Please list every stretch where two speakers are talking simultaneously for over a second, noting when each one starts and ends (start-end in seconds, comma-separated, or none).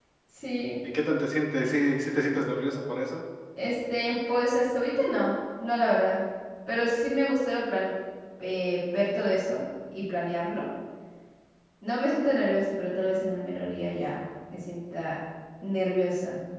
none